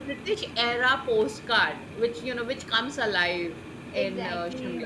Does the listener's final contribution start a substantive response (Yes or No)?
Yes